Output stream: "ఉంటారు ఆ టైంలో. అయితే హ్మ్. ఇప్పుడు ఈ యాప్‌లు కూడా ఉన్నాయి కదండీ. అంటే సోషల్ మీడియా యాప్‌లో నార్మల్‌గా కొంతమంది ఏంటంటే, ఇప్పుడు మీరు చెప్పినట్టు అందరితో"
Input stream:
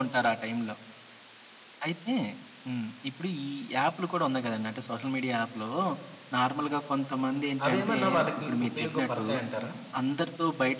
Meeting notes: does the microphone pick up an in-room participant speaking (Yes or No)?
Yes